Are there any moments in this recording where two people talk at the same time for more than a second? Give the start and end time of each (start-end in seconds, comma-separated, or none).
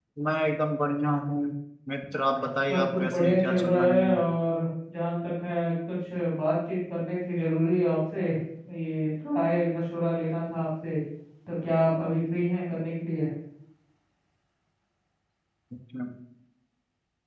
2.7-4.2